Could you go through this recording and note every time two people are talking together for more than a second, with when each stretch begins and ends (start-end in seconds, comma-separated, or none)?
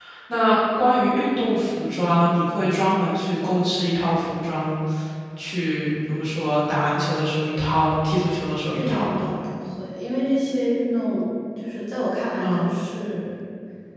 none